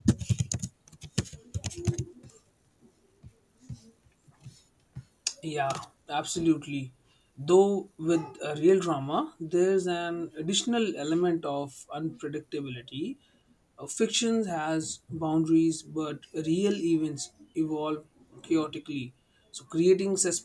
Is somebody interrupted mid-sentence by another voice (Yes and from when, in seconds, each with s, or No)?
No